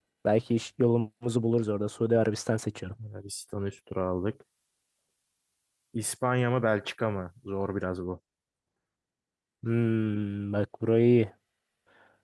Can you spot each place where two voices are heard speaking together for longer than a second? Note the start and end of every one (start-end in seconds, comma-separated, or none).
none